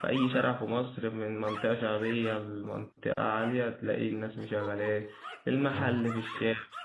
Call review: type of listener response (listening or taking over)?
listening